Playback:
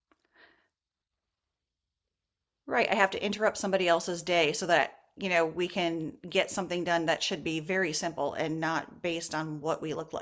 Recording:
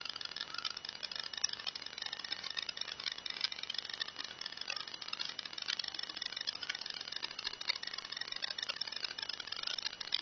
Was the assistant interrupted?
No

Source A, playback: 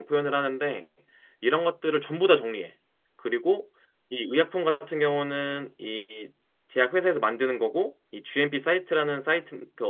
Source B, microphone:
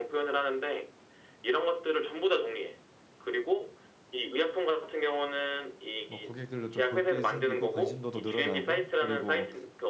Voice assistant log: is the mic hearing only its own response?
No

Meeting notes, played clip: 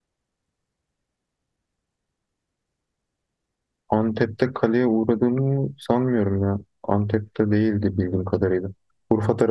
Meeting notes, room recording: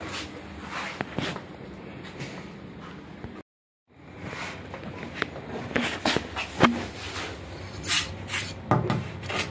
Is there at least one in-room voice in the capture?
No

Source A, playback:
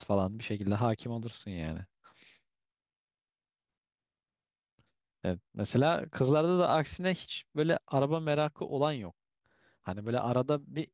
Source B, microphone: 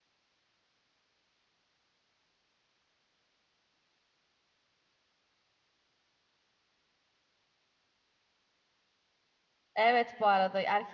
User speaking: Yes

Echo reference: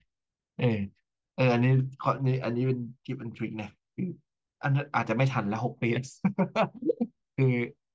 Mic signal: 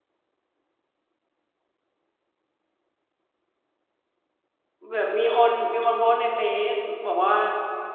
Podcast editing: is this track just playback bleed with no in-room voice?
No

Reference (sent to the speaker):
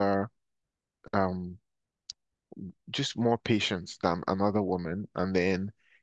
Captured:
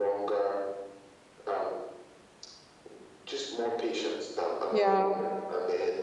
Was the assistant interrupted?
Yes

